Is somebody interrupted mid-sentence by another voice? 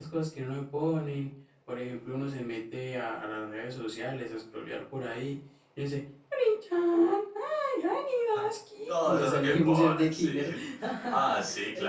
Yes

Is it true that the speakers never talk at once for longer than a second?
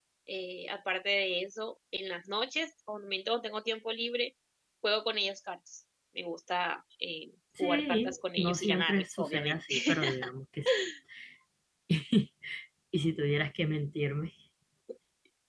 No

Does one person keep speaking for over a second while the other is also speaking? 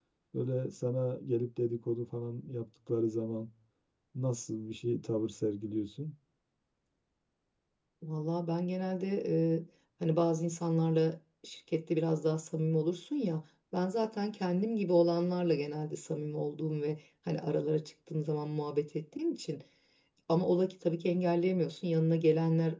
No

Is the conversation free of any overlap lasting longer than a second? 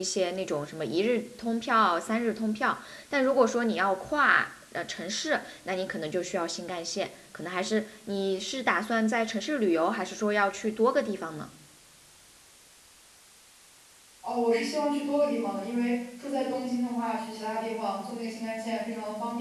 Yes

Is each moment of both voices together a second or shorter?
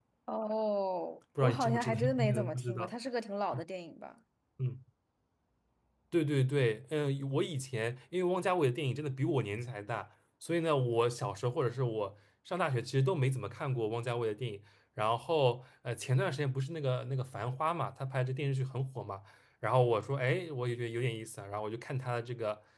No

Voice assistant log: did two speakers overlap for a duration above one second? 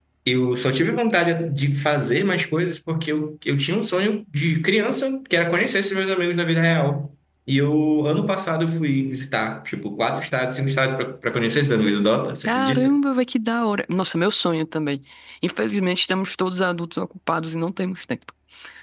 No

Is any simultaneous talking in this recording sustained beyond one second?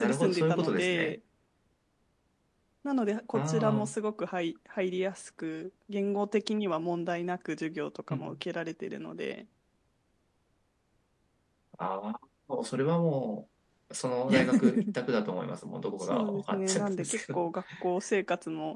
Yes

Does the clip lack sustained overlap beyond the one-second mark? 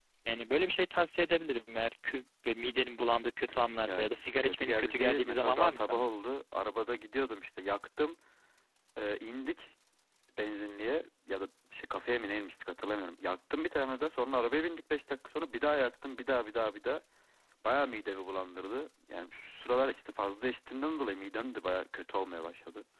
No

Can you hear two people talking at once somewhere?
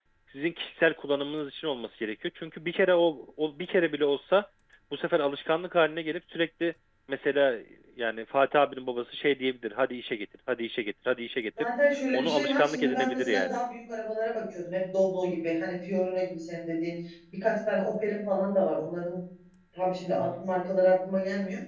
Yes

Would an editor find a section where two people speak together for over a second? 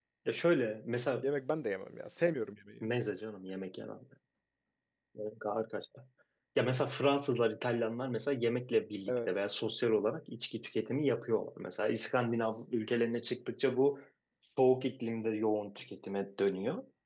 No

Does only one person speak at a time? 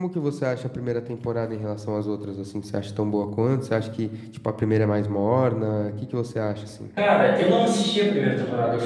Yes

